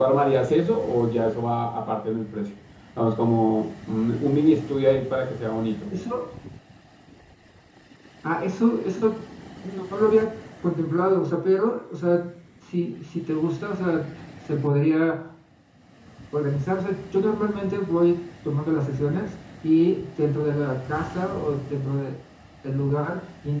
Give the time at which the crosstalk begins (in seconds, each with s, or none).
none